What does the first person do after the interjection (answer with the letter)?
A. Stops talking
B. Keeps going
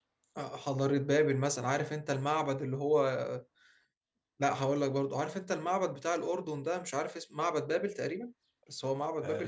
A